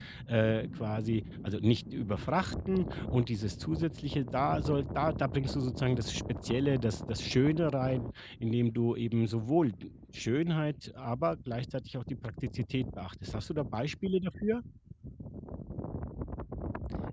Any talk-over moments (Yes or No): No